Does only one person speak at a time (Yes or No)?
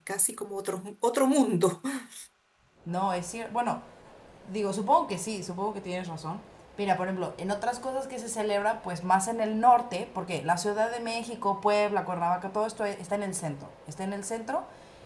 Yes